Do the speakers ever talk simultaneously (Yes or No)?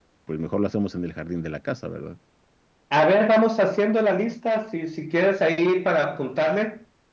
No